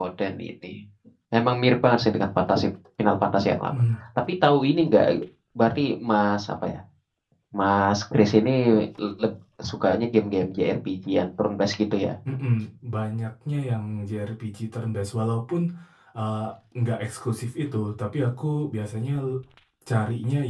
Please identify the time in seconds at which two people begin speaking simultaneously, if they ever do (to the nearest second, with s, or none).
none